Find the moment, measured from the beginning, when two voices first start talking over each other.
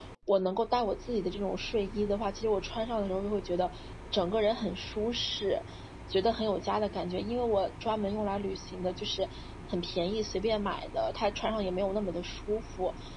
none

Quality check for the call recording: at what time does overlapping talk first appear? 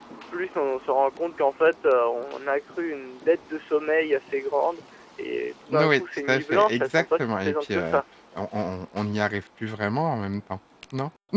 5.7 s

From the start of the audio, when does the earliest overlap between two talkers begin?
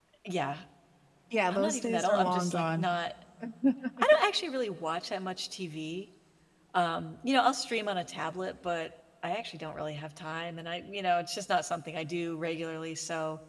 1.5 s

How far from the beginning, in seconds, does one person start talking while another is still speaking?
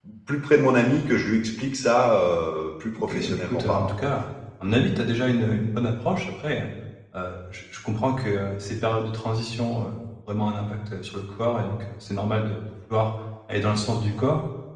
3.0 s

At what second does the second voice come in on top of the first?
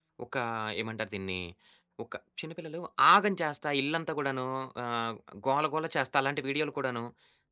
none

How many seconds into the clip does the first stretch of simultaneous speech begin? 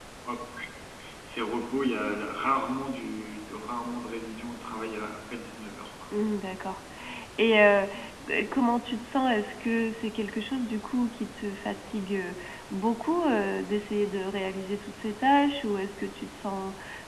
none

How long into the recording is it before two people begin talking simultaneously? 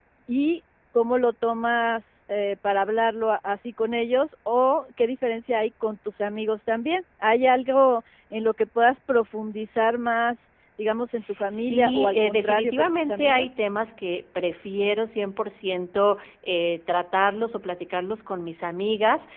11.5 s

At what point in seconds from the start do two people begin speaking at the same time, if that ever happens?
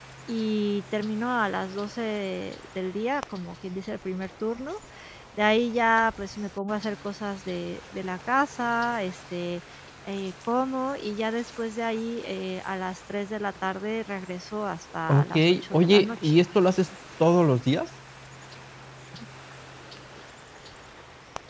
15.1 s

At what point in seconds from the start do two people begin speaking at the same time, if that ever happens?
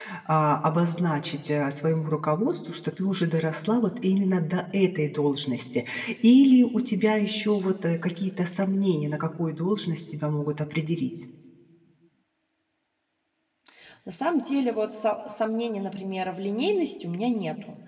none

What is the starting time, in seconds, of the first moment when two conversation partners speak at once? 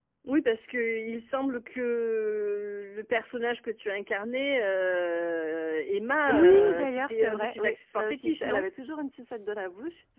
6.3 s

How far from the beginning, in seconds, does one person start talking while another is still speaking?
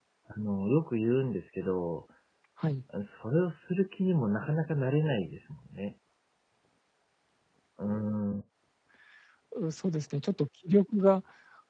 none

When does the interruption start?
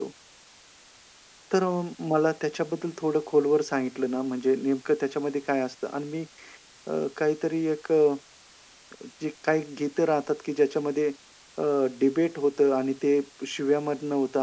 none

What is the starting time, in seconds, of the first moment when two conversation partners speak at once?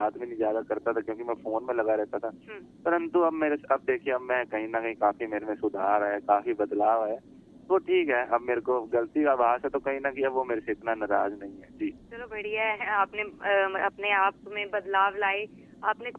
none

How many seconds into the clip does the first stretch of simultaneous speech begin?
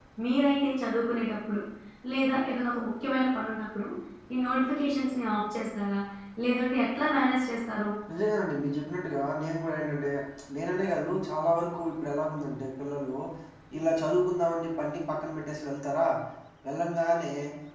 none

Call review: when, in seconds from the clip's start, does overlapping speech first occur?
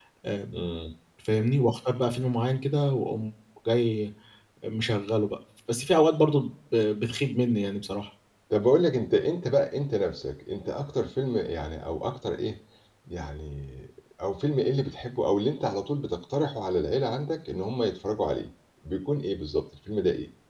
none

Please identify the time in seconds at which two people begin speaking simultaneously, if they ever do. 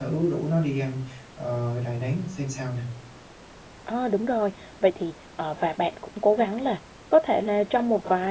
none

